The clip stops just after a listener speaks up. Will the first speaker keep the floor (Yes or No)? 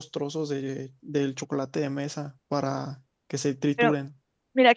No